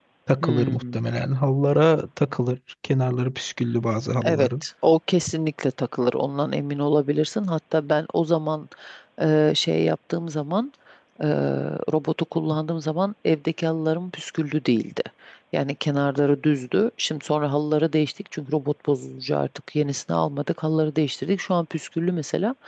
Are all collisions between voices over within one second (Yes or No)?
Yes